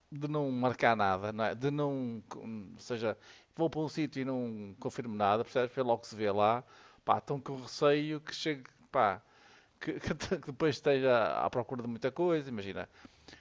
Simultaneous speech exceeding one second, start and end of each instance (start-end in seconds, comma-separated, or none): none